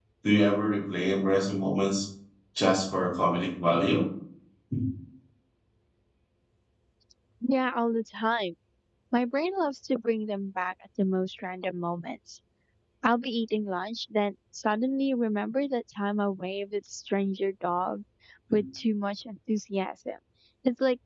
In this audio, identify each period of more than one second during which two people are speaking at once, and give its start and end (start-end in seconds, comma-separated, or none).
none